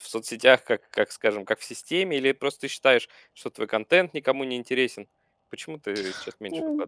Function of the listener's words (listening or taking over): taking over